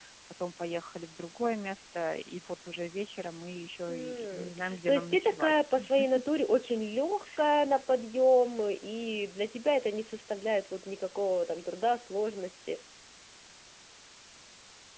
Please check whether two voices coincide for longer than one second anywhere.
Yes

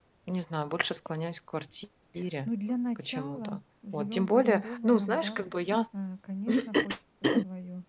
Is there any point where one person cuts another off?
Yes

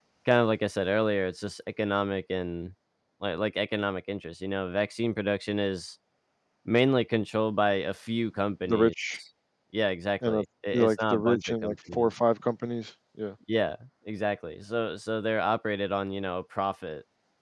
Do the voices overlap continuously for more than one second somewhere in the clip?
Yes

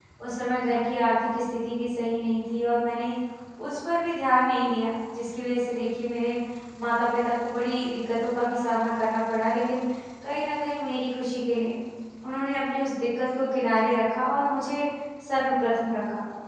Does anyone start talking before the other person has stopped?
No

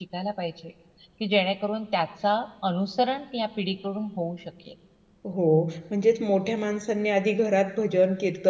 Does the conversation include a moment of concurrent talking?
No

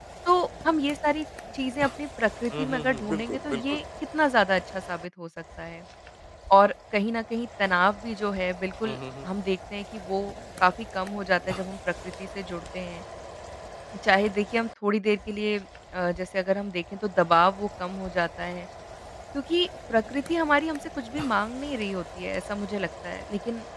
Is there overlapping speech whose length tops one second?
Yes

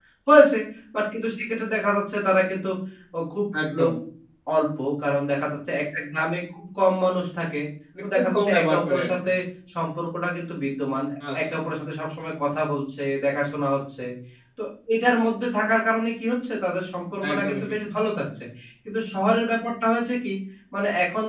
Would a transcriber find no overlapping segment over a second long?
No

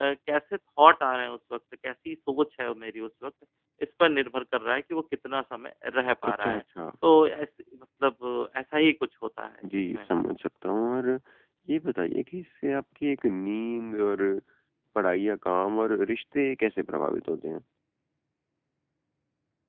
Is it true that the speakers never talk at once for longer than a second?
Yes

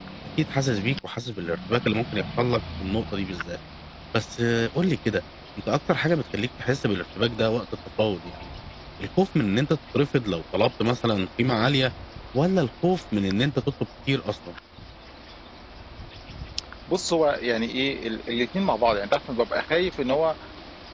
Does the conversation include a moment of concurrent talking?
No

